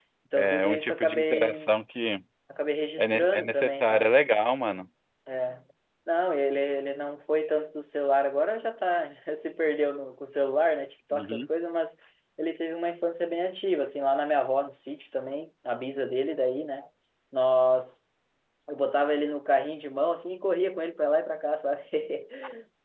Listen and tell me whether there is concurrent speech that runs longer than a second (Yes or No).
Yes